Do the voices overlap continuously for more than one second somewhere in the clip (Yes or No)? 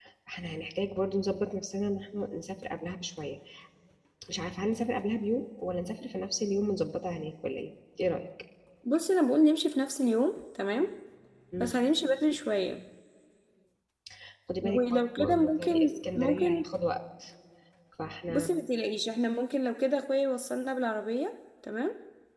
Yes